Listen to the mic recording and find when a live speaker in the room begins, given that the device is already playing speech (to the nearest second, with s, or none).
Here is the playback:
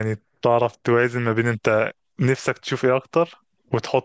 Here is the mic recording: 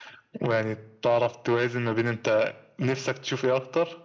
none